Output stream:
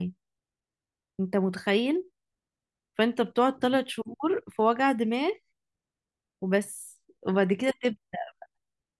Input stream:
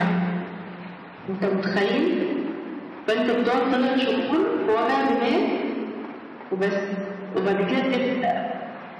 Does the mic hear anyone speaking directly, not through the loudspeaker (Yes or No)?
No